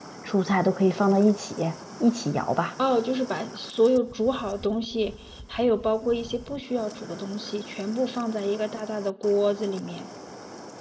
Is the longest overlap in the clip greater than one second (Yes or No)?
No